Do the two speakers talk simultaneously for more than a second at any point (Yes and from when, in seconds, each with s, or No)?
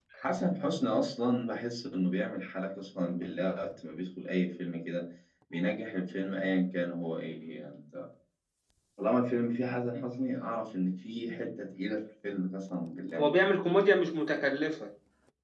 No